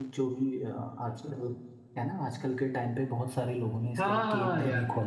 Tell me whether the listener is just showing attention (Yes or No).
No